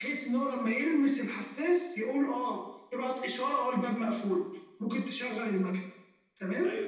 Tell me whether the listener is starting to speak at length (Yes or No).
Yes